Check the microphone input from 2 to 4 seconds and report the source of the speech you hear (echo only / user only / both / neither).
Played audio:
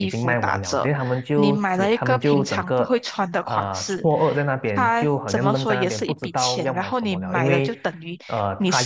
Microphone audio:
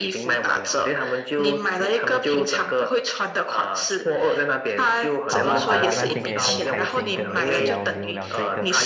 echo only